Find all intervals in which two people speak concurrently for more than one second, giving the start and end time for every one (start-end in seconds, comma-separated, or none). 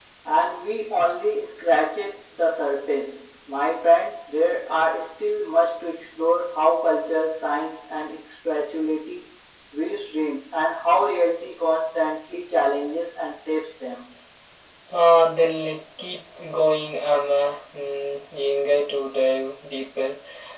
none